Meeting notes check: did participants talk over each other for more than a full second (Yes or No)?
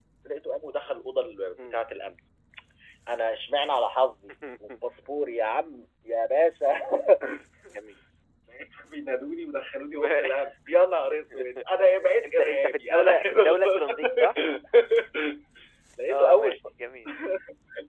Yes